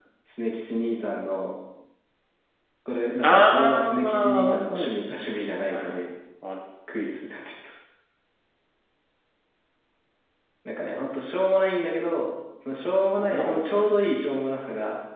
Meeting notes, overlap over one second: present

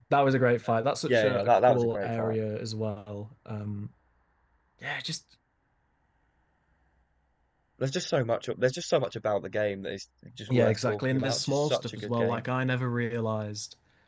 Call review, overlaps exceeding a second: present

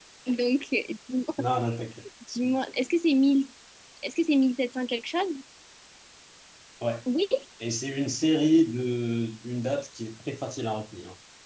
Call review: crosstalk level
none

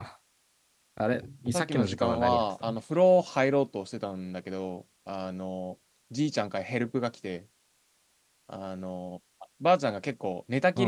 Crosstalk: present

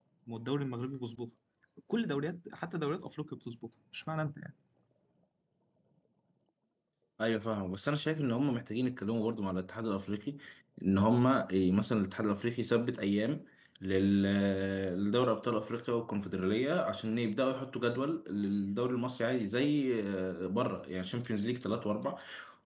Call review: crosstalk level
none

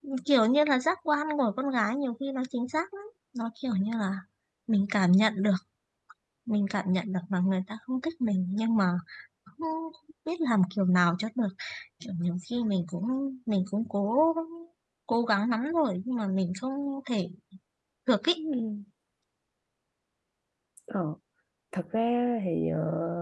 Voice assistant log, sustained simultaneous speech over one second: none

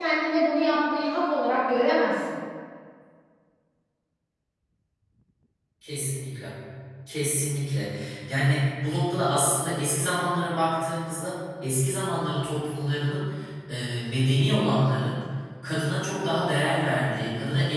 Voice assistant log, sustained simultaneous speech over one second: none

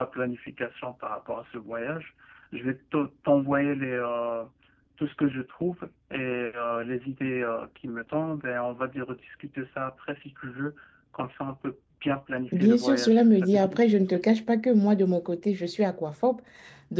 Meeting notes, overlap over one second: present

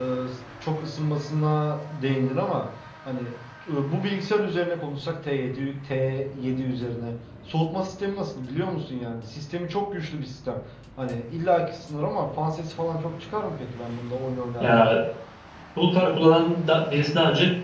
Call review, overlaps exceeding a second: none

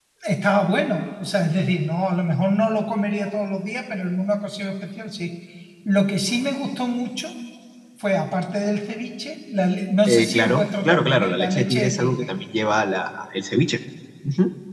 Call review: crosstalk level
present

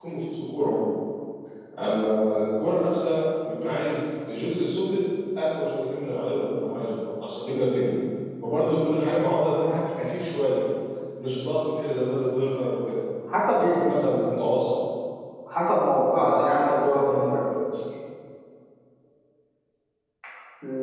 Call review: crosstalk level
present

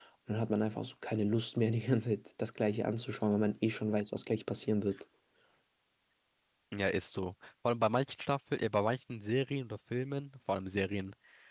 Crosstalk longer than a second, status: none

